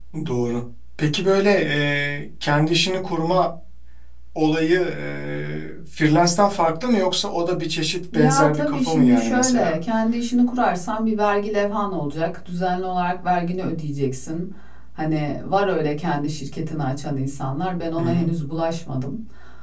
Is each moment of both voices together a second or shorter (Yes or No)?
No